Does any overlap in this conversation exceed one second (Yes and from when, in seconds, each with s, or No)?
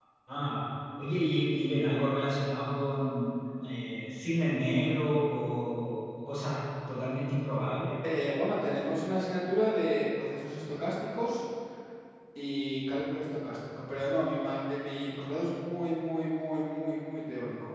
No